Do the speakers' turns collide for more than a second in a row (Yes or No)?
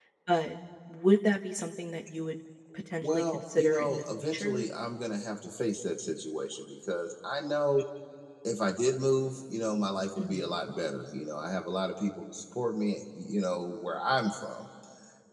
Yes